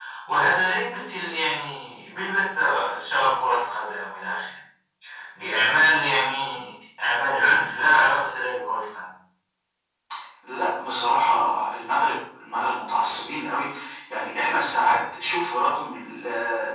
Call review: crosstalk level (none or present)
none